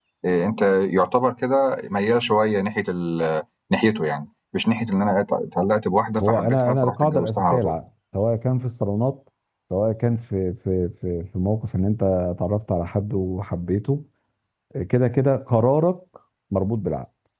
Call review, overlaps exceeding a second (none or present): present